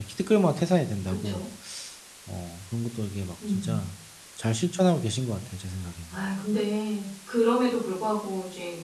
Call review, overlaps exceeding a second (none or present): none